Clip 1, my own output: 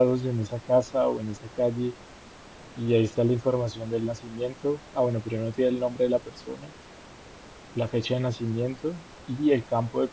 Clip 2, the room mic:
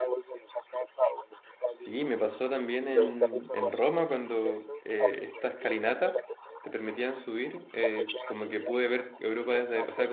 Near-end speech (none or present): present